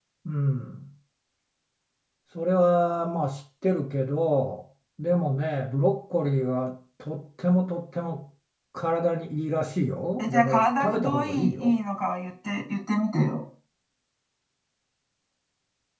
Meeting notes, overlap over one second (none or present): present